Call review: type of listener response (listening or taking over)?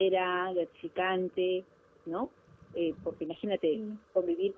listening